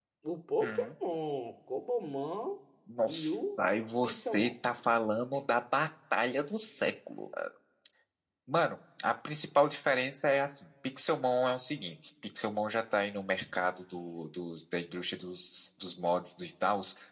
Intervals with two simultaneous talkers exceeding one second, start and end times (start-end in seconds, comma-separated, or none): none